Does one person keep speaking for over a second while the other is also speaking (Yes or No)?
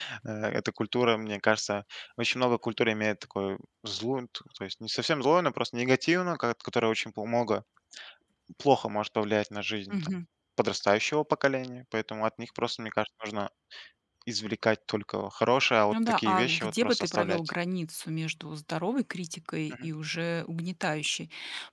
Yes